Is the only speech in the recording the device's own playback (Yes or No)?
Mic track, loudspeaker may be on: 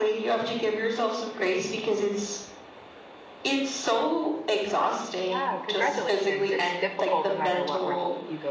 No